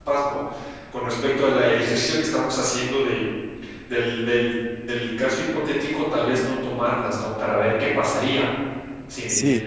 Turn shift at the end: Yes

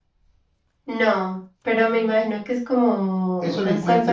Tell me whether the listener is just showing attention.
No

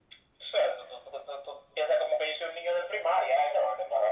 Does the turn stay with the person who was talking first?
No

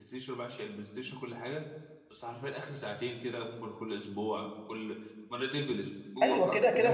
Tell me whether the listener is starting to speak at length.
Yes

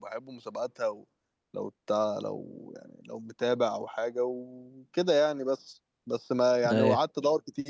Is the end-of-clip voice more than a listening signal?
No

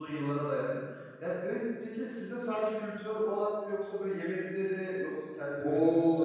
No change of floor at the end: No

